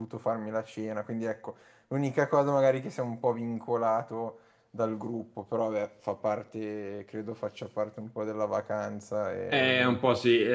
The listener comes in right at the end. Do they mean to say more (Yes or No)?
Yes